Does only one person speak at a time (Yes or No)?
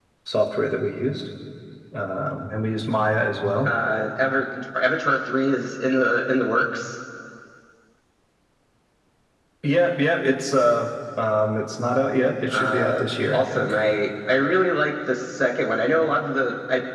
No